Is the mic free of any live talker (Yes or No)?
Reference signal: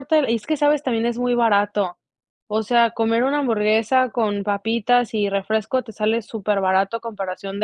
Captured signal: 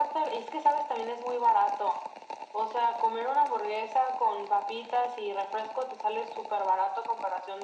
Yes